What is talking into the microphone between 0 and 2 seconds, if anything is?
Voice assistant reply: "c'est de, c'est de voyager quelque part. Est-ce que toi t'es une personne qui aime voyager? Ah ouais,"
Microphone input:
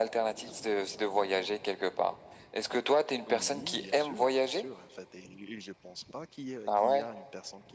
echo only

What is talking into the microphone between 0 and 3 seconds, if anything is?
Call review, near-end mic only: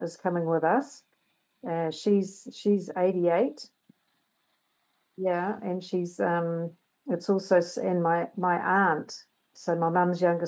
user only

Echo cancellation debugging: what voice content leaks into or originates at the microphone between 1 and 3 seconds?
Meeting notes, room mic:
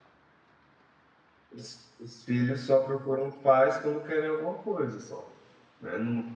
user only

